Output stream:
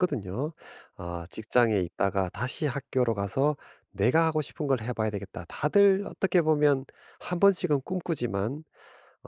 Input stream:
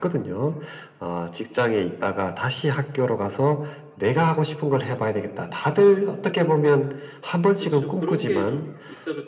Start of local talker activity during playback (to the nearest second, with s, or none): 8 s